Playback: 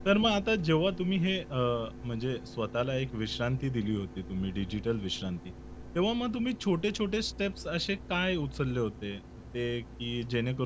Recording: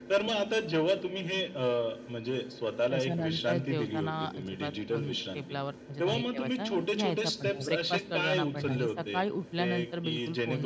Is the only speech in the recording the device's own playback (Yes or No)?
No